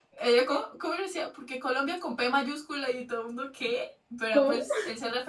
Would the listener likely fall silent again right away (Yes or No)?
Yes